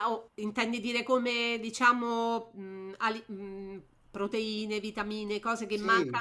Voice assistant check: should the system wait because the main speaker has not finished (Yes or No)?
No